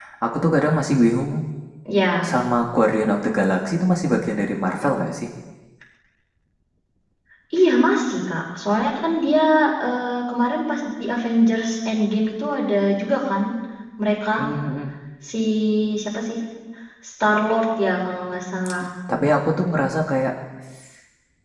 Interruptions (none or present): none